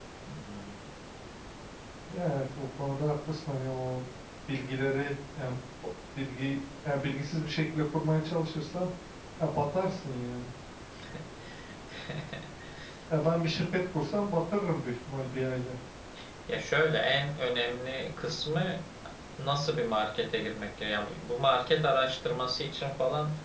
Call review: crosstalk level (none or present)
none